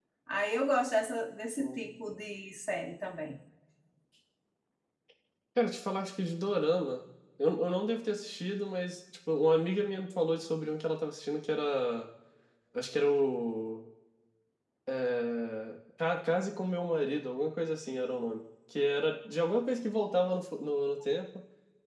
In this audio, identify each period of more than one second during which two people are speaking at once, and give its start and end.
none

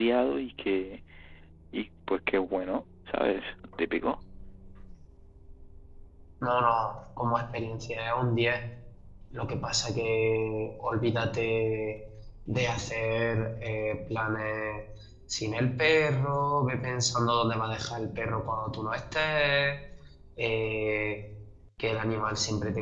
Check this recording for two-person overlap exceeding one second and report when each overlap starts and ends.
none

